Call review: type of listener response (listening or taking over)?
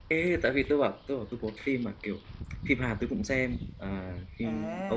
taking over